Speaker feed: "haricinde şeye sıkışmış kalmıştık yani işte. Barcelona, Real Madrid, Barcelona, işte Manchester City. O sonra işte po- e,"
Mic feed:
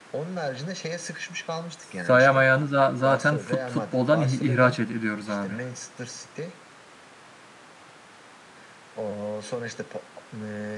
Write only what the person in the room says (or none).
sayamayanı za- zaten fut futboldan ih- ihraç ed- ediyoruz abi.